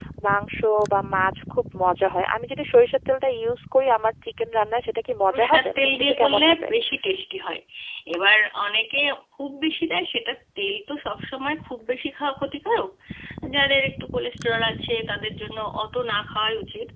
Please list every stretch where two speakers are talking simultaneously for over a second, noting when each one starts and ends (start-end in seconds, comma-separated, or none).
5.3-6.7